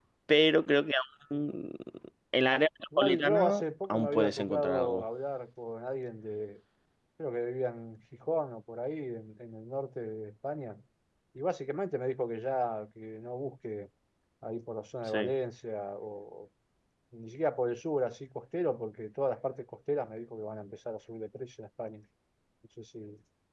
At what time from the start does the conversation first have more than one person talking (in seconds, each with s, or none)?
3.0 s